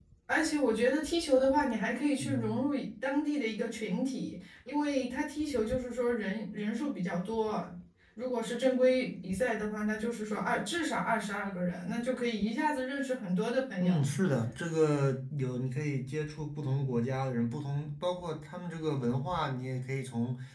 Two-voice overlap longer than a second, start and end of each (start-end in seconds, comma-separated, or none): none